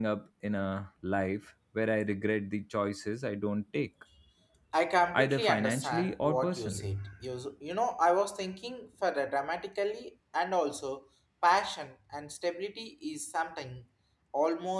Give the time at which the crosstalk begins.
5.1 s

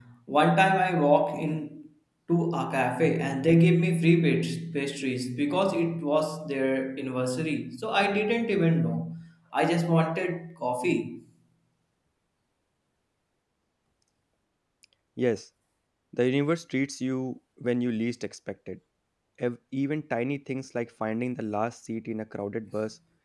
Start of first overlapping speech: none

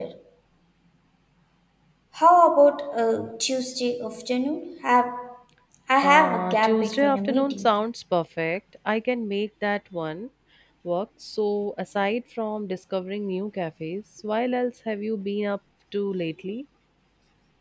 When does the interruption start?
6.0 s

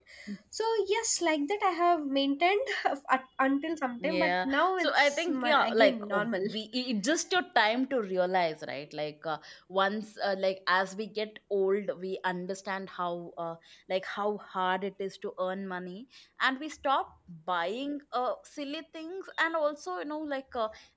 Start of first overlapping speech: 4.0 s

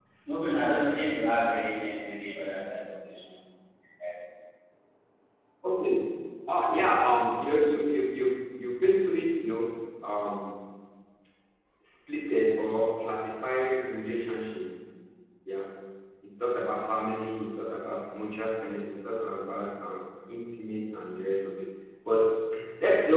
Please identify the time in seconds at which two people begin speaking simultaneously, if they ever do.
none

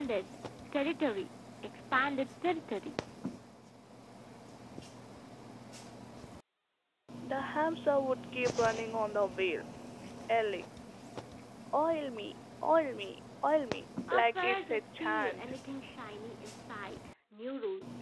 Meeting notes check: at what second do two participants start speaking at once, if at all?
14.1 s

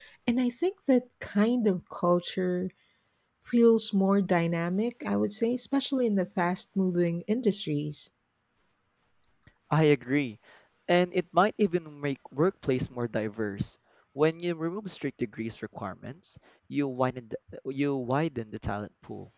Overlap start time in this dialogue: none

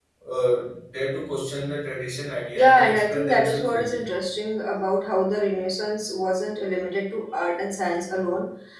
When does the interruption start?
2.5 s

